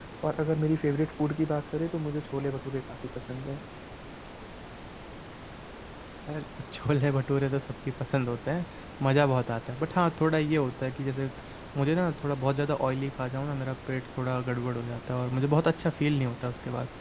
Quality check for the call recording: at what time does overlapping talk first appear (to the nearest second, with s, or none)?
none